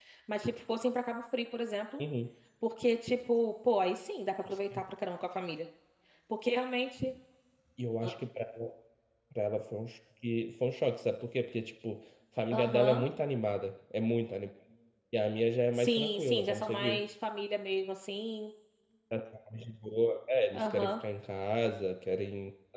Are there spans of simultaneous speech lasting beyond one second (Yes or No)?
Yes